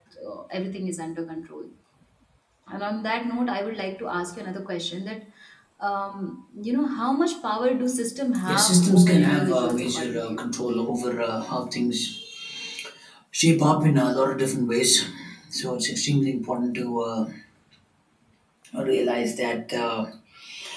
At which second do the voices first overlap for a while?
8.4 s

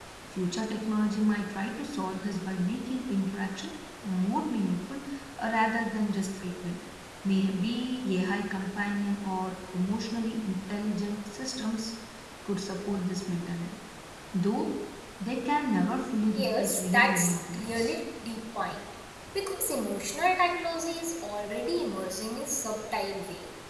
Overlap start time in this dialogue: 16.4 s

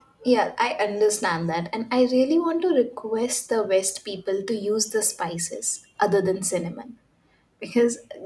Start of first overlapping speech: none

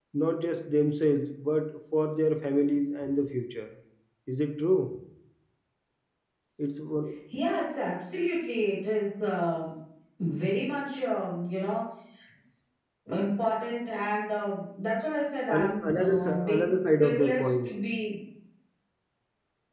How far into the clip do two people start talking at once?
15.5 s

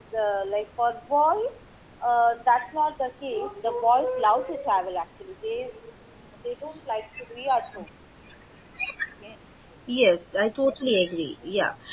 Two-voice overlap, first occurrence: none

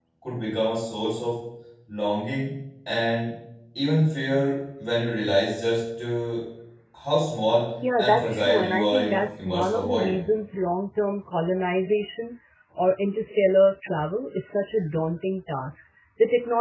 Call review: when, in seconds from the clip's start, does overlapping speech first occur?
7.8 s

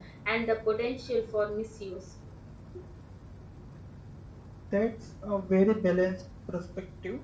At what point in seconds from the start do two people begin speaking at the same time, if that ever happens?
none

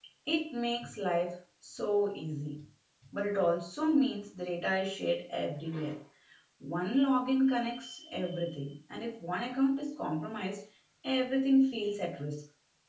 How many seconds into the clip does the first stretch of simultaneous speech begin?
none

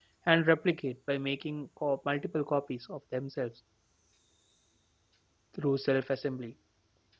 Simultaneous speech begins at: none

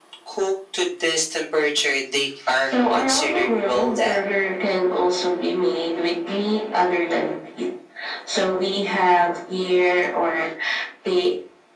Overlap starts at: 2.7 s

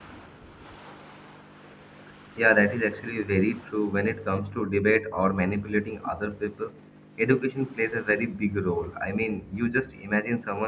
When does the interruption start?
none

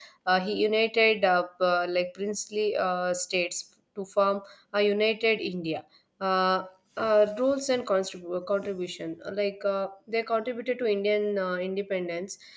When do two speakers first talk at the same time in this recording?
none

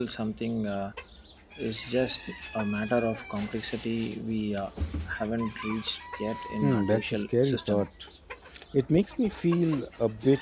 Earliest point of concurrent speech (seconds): 6.6 s

